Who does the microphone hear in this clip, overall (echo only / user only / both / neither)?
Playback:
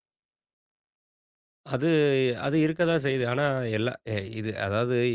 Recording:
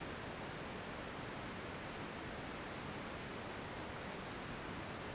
neither